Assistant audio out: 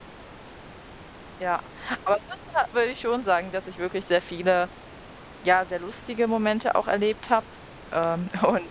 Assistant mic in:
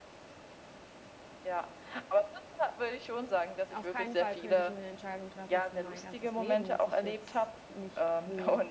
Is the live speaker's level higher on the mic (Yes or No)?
No